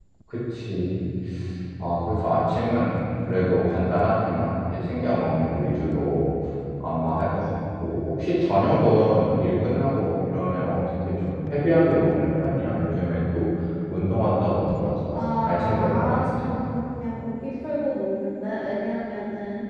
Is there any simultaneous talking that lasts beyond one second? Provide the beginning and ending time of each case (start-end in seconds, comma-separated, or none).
15.1-16.5